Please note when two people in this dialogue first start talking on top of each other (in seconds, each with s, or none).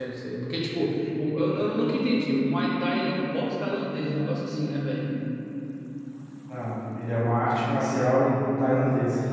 none